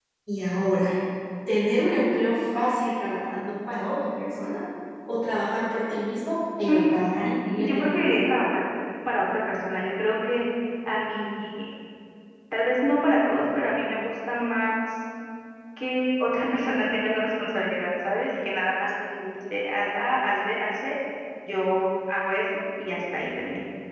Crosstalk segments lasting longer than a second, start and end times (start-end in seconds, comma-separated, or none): 6.7-8.2